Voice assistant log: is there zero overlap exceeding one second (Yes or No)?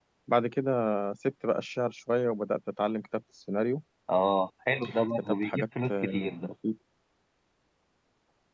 No